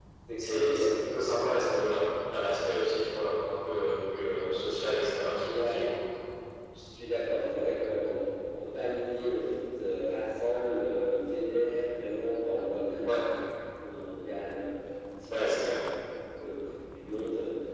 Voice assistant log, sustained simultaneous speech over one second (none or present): present